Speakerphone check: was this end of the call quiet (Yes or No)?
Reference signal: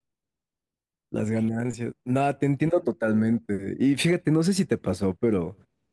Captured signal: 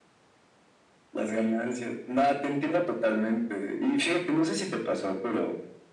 Yes